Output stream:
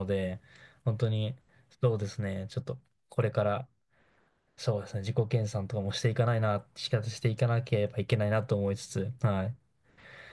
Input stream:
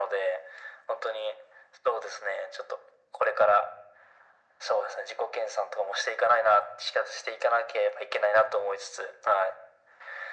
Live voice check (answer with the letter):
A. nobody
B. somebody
A